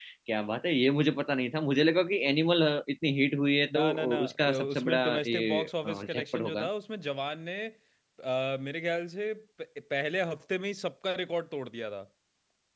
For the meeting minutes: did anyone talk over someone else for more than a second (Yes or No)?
Yes